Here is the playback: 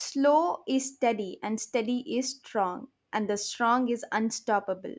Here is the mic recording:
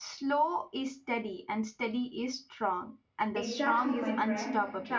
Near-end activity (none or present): present